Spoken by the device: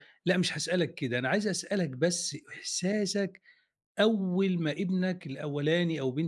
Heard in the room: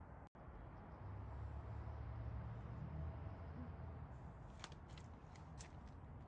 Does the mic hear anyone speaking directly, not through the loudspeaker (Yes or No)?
No